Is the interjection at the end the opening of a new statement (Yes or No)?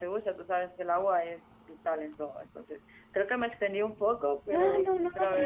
Yes